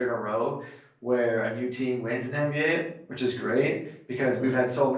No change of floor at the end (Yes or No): Yes